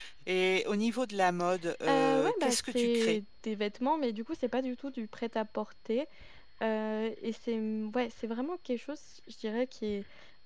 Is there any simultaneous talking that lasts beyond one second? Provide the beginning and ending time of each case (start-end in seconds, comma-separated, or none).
1.9-3.2